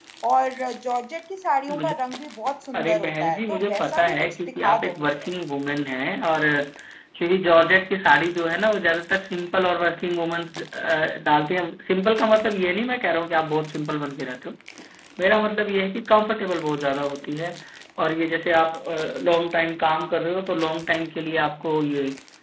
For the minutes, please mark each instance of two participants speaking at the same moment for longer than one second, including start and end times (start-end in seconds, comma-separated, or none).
2.7-5.3